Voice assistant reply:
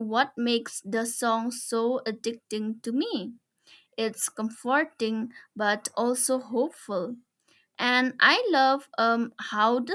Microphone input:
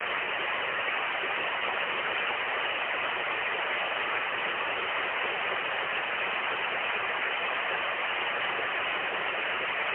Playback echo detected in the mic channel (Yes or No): No